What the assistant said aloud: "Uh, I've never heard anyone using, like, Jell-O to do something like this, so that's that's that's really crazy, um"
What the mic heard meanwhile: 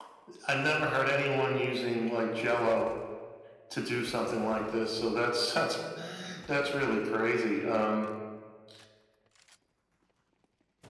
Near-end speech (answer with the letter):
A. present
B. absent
B